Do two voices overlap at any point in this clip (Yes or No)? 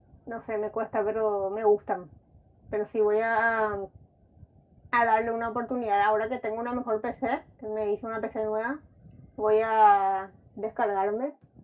No